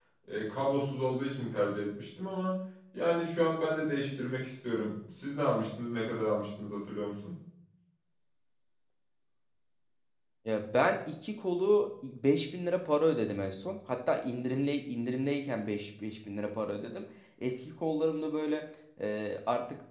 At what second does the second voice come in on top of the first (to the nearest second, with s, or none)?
none